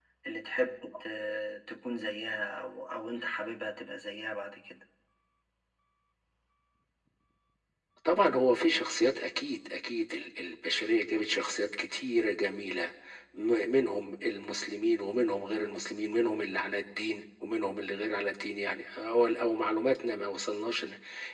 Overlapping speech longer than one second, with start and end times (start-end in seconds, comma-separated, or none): none